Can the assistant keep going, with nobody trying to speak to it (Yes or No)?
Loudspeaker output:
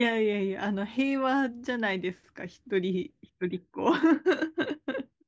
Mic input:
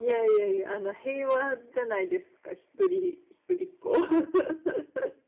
Yes